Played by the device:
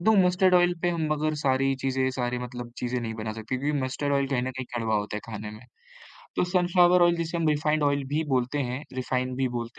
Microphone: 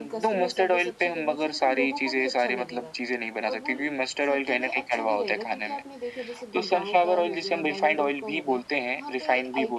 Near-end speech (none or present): present